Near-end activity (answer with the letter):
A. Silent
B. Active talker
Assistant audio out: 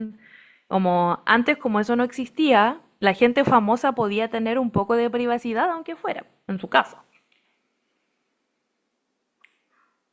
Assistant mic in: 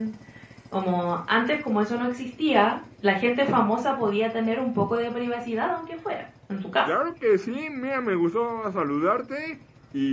B